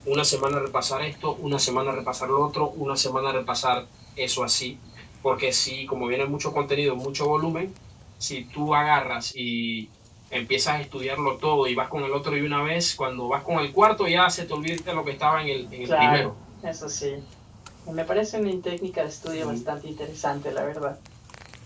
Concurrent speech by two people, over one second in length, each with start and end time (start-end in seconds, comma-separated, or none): none